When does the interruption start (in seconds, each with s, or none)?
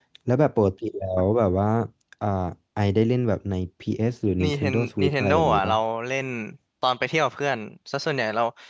4.4 s